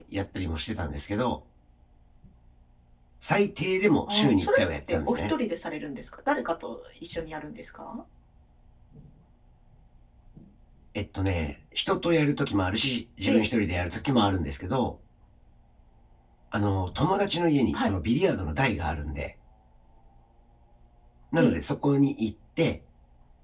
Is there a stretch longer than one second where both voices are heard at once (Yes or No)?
Yes